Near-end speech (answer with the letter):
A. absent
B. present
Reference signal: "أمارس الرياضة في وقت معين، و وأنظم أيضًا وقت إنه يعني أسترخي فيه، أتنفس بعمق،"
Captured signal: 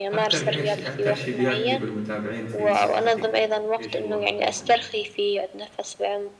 B